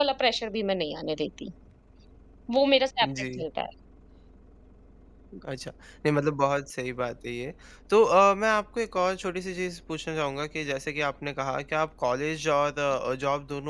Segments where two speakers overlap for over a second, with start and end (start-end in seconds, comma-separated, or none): none